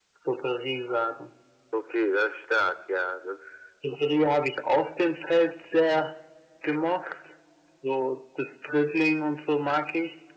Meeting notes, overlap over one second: none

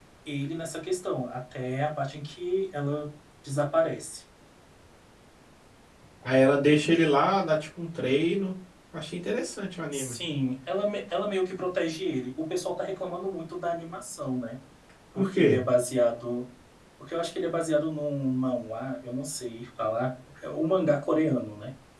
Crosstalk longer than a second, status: none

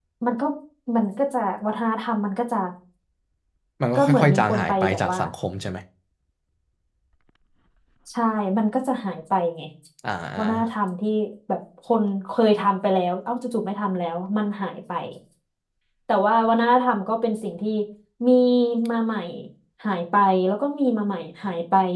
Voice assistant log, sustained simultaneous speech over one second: present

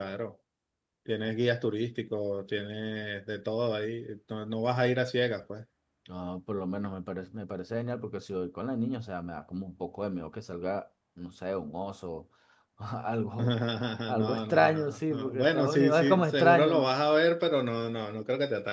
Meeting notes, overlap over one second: present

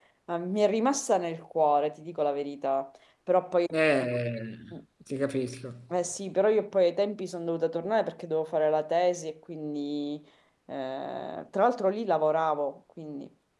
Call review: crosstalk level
none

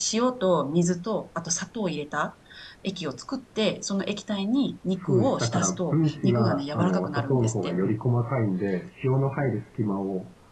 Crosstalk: present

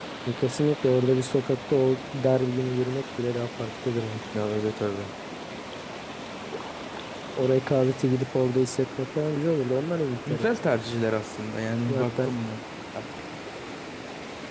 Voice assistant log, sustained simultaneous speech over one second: none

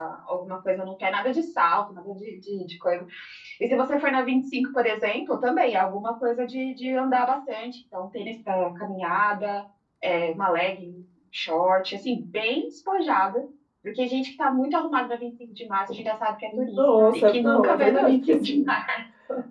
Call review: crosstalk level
present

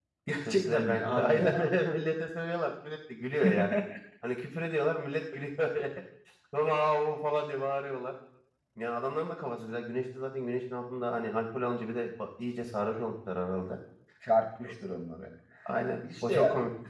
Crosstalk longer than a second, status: present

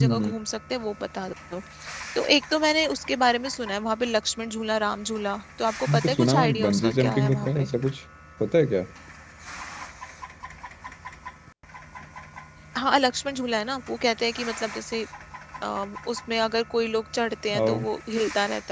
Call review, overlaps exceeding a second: present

